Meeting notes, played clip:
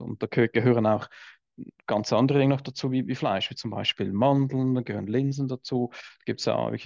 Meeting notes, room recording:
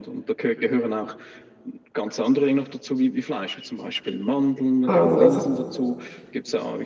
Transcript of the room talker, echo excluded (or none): Also das,